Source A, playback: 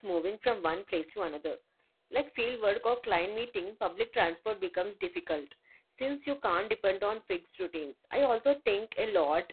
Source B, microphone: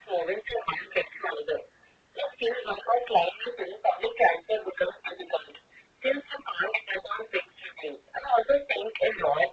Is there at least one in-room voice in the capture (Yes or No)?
No